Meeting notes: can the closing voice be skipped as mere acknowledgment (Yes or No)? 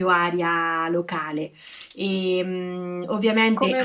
No